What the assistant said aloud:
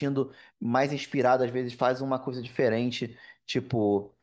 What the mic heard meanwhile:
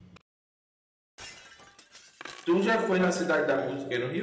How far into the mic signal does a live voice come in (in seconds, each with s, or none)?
2.4 s